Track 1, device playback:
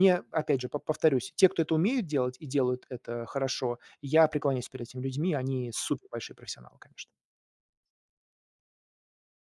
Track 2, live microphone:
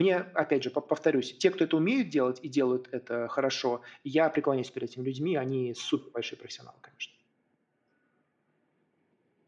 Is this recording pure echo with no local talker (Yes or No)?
Yes